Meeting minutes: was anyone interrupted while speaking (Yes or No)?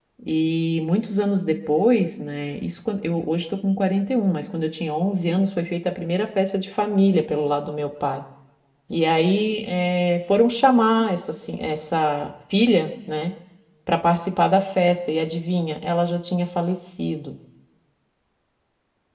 No